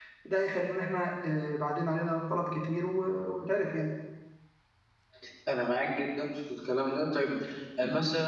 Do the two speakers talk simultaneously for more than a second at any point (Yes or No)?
No